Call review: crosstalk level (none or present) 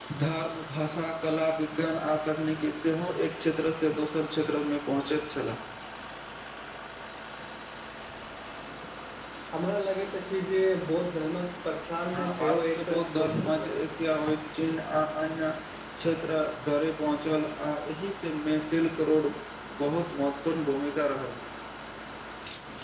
present